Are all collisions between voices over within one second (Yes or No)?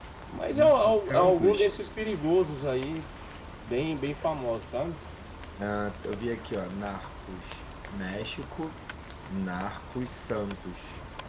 No